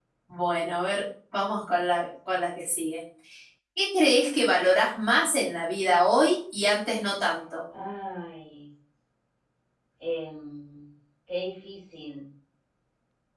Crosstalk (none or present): none